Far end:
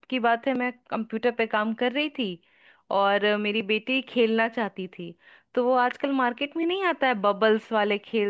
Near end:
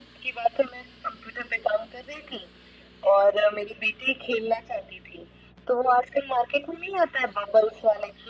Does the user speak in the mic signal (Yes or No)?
No